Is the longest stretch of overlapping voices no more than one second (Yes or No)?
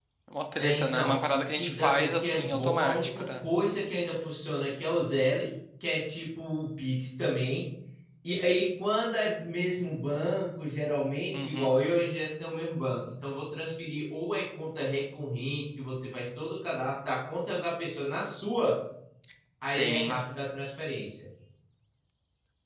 No